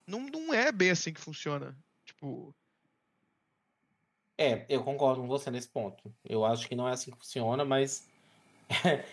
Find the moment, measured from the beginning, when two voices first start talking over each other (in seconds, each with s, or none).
none